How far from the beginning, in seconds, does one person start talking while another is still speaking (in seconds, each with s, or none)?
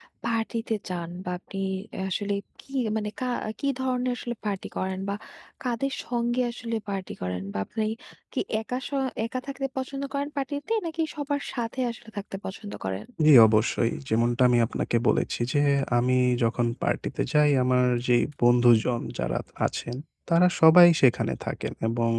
none